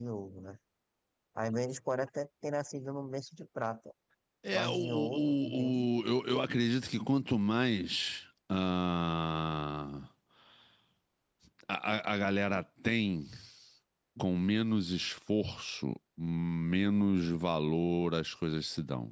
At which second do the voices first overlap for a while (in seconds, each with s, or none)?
4.5 s